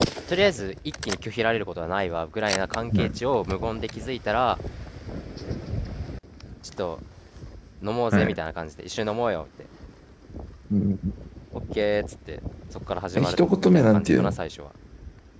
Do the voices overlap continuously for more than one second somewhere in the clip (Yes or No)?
Yes